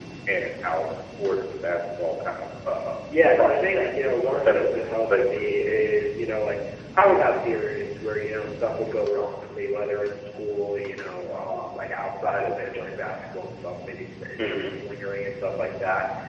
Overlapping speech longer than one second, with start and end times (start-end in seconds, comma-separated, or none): 3.4-5.2